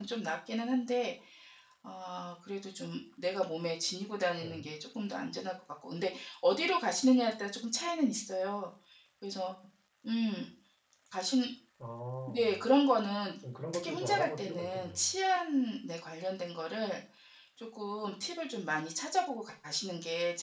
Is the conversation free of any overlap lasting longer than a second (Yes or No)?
No